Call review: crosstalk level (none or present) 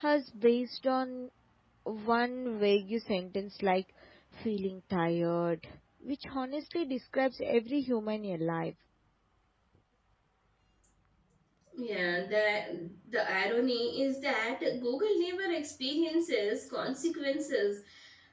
none